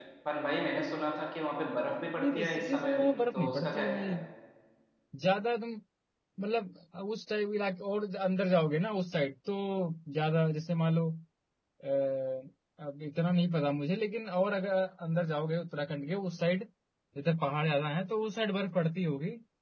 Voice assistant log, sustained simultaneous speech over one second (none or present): present